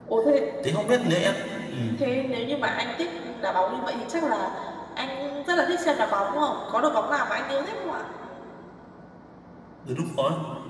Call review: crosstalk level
none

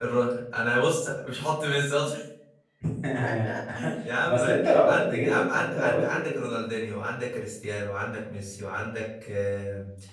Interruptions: present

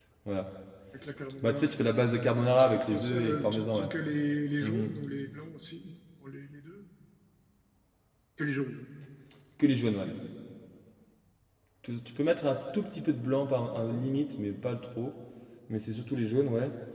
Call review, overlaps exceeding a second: present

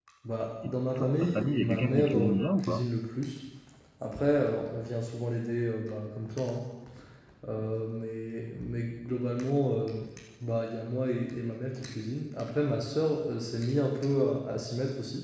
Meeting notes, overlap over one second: present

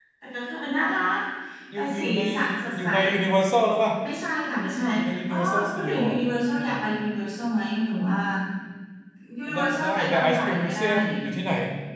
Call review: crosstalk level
present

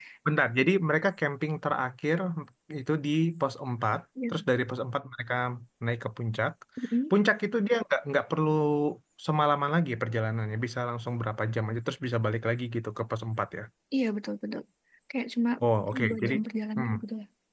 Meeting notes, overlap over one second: none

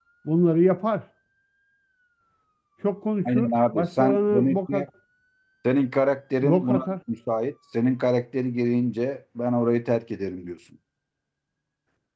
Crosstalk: present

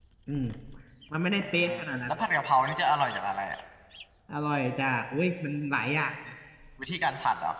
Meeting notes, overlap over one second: none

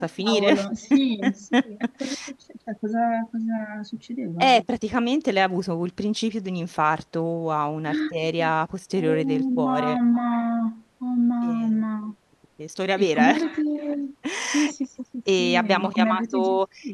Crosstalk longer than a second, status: present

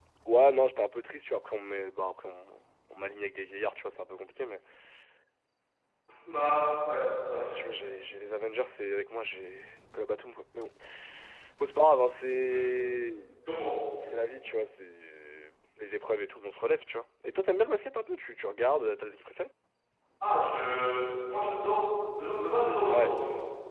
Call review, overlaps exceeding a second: none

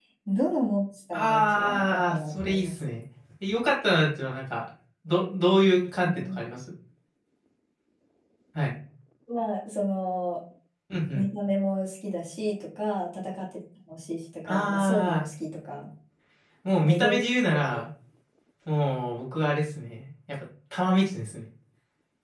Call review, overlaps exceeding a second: present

